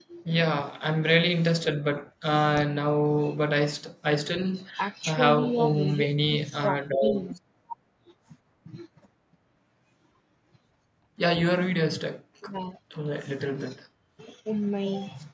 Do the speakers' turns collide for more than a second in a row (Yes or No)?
Yes